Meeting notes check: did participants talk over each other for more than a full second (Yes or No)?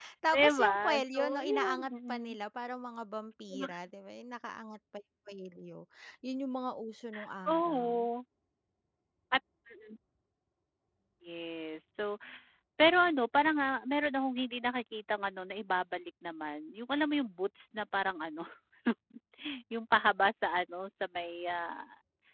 Yes